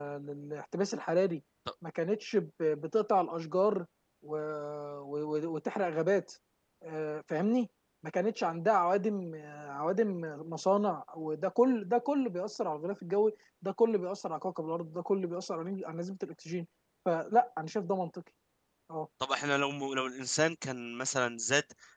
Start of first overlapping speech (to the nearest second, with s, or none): none